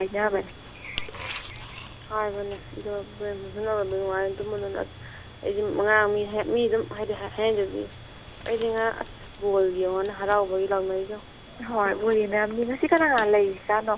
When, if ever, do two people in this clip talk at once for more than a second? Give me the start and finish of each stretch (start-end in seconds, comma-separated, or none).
none